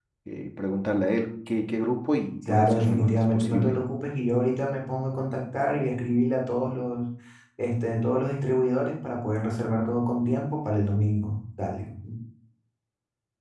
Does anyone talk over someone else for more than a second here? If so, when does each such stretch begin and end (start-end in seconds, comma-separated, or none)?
2.5-3.8